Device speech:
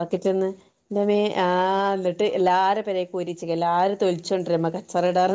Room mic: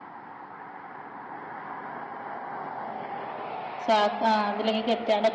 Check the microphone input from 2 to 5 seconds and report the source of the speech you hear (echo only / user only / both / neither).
user only